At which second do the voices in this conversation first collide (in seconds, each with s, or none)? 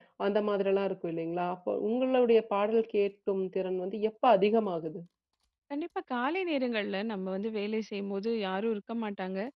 none